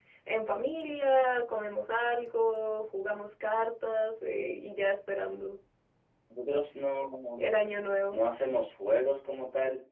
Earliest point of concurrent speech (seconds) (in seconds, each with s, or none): none